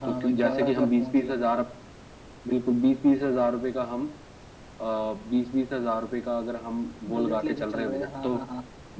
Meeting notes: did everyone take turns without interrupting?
No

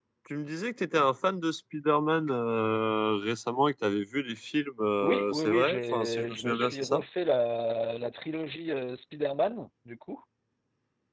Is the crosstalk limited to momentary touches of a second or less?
No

